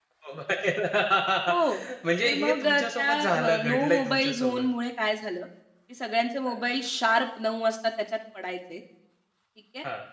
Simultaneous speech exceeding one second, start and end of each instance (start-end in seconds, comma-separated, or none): 2.2-4.7